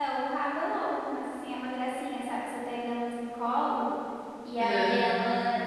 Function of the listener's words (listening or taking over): listening